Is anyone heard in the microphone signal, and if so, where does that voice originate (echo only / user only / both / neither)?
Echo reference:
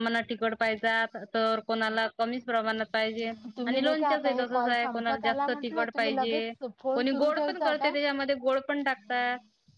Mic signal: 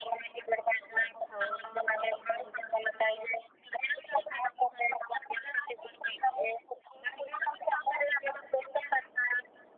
both